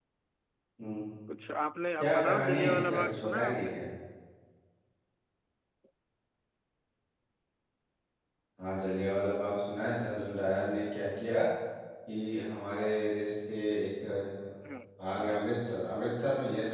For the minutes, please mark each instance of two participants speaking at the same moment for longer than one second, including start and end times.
2.0-3.7

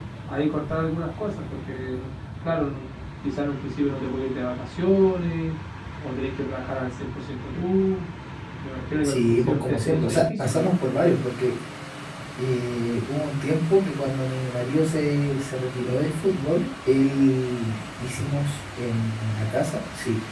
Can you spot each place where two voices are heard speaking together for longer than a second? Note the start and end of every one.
9.0-10.7

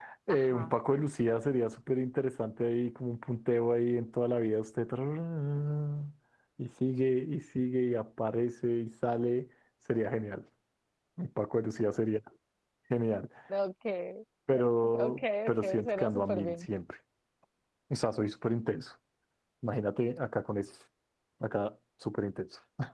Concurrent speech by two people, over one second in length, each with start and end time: 14.9-16.5

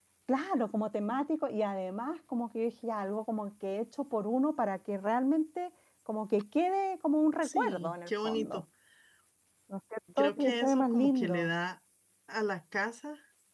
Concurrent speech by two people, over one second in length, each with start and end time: 7.4-8.6, 10.2-11.5

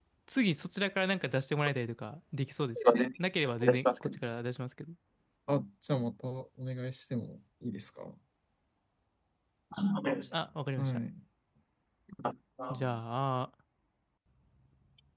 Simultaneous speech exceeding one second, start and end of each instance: none

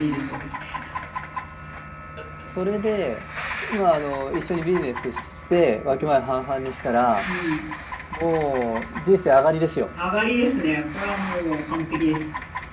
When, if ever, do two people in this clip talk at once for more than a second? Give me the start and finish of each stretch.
none

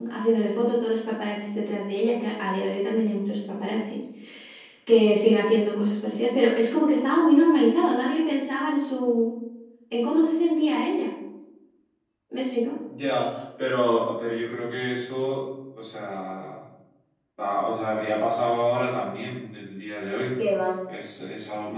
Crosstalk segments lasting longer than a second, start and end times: none

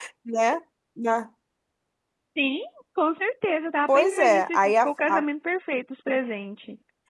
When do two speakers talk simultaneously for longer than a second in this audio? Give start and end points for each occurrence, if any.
3.9-5.2

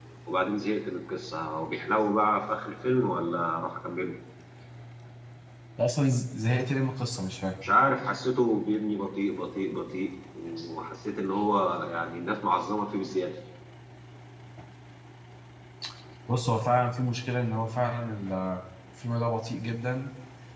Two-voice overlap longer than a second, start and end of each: none

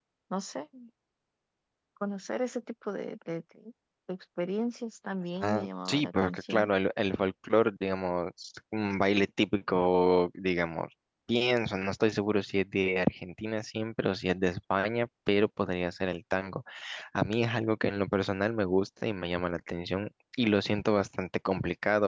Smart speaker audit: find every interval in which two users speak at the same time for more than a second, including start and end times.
5.4-6.7

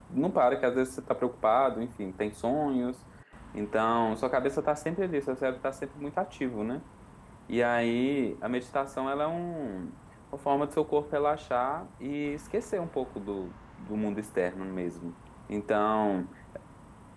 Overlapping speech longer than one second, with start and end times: none

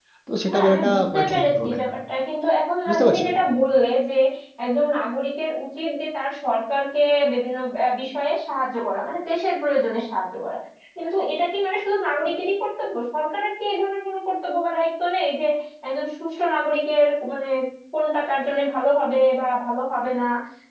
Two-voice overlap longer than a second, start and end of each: 0.5-1.9

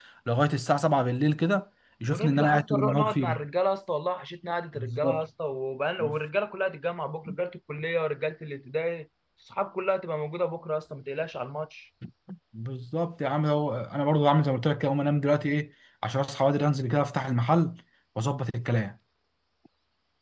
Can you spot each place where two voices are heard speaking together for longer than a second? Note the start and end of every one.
2.1-3.4

